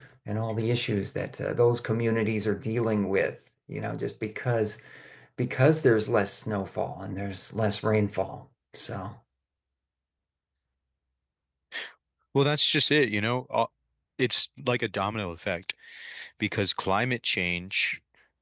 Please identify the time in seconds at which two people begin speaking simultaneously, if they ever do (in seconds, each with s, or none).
none